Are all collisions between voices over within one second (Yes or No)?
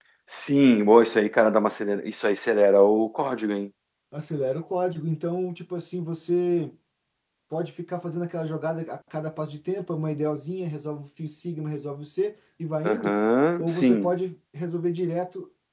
Yes